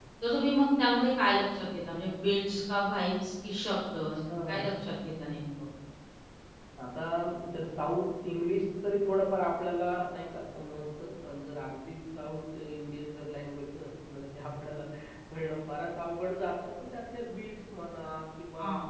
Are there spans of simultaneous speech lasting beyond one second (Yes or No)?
No